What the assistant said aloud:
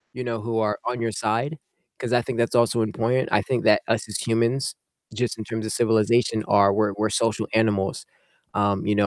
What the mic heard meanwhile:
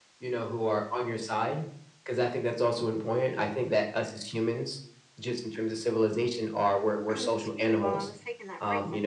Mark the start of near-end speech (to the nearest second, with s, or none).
7 s